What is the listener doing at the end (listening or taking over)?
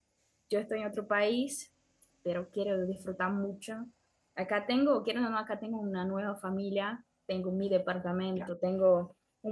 listening